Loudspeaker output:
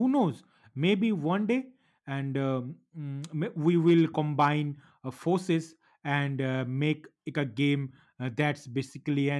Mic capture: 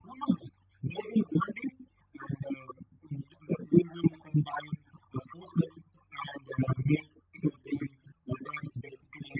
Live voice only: none

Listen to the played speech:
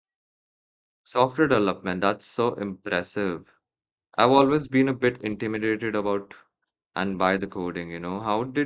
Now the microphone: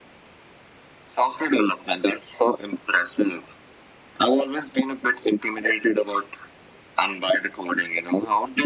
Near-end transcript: none

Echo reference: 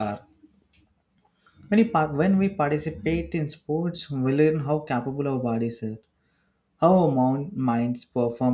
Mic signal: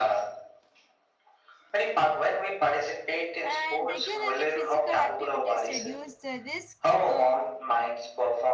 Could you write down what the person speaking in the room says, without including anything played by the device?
and regularly physical activities reduce the risk uh,

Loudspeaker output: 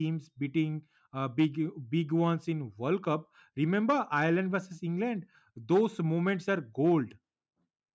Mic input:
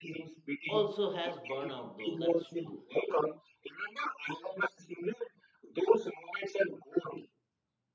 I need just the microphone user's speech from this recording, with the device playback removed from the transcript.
also has burnout though that's true

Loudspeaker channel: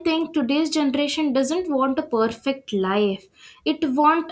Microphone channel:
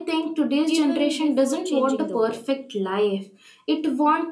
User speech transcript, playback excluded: even before changing the world

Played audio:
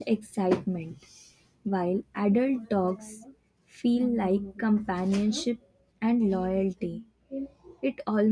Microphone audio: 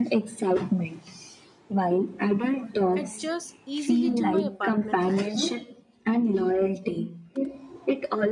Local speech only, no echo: adjust easily to my apartment lifestyle.

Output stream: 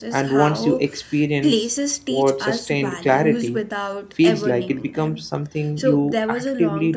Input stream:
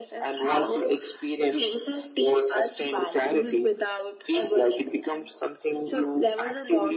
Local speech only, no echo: none

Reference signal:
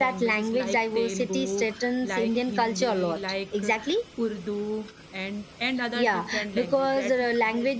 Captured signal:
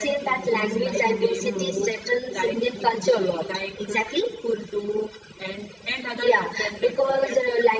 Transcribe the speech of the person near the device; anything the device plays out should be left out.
hmm, hmm, hmm,

